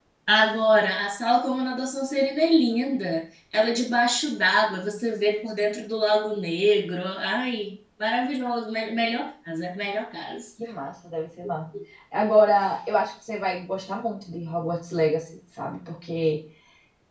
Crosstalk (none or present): none